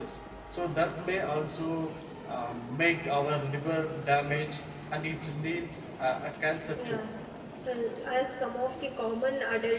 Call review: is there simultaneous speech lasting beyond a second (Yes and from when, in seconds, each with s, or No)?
No